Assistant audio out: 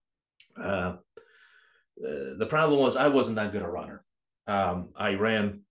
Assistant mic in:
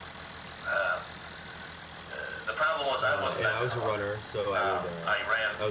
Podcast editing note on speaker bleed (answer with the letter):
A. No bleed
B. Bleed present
B